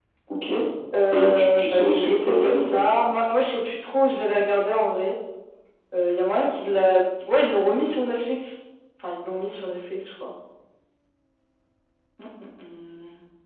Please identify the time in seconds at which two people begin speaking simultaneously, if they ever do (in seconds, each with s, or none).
1.1 s